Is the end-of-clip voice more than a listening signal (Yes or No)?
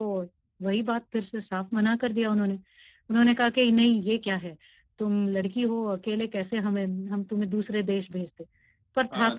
Yes